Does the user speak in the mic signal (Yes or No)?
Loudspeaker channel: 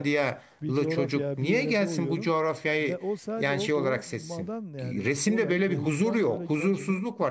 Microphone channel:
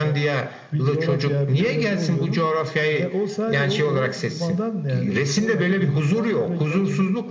No